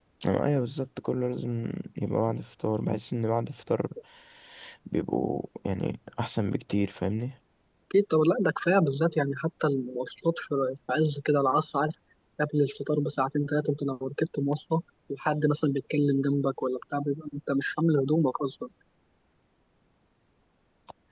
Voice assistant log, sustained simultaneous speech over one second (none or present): none